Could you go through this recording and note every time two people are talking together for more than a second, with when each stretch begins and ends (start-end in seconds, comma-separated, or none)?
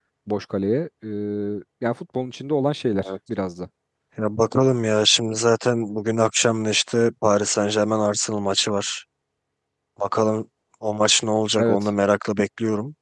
none